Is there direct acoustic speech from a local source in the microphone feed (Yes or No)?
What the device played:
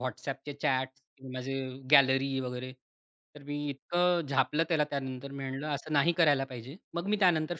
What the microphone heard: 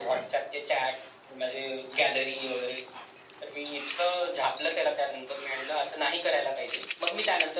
No